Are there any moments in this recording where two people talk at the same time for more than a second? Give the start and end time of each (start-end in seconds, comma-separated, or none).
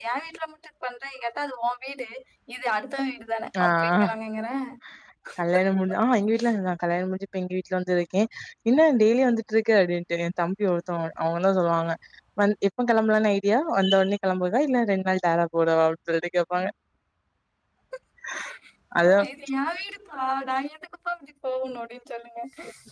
none